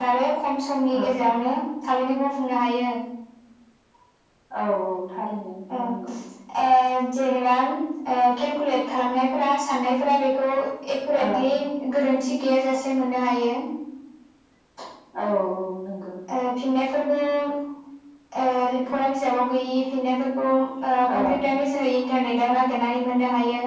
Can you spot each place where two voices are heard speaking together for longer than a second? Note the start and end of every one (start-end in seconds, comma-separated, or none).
none